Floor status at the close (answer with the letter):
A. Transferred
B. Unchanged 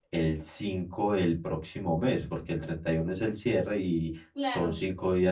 B